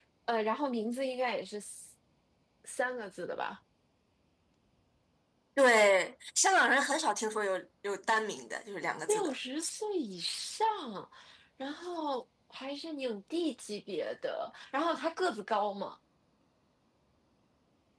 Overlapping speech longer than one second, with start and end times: none

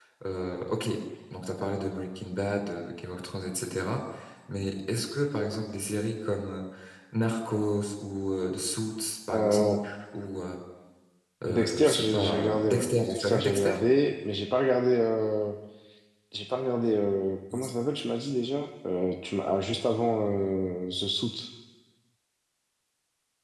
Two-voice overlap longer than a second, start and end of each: 11.5-13.7

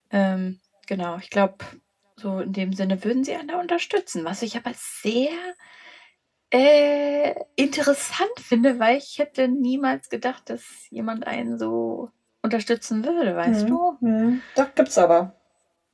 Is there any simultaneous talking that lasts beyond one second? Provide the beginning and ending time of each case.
none

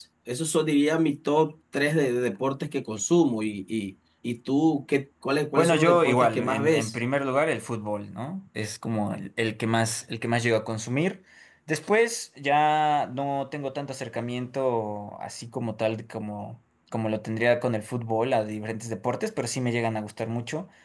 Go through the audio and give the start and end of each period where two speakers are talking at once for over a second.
5.6-6.9

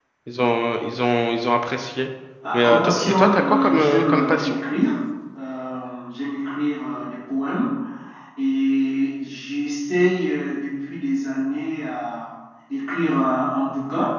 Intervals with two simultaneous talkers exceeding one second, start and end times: 2.6-4.6

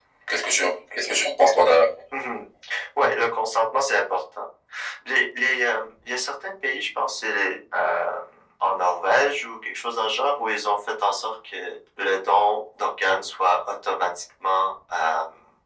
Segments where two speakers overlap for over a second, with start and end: none

